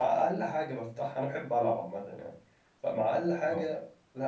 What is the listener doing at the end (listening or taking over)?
listening